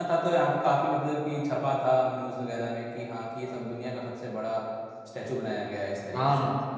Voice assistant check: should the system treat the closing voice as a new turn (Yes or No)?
Yes